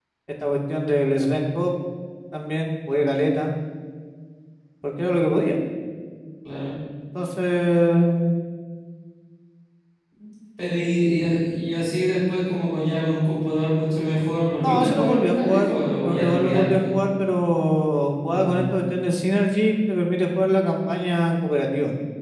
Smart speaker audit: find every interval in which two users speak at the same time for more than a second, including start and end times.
14.6-17.1

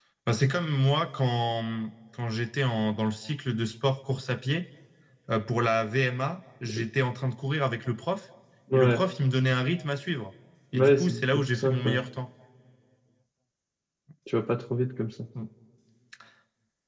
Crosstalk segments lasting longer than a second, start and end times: 10.7-12.0

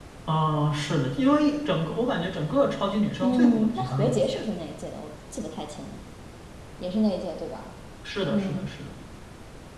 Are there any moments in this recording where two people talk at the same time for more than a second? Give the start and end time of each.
3.2-4.5

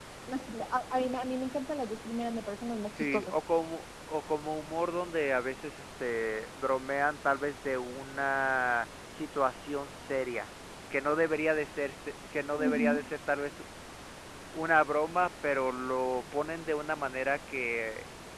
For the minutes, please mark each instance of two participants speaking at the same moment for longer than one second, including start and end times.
none

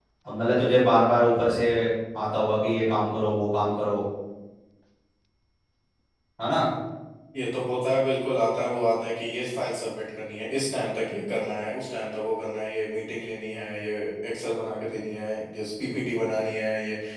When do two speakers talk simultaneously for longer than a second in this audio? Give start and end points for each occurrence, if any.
none

